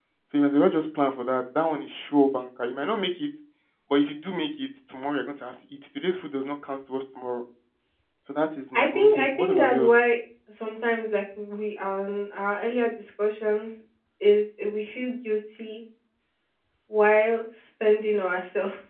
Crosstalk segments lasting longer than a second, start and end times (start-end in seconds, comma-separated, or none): 8.7-9.9